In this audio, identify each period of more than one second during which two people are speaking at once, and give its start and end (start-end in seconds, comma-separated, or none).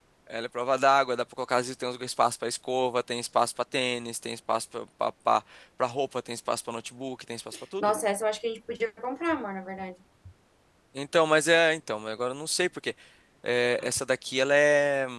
none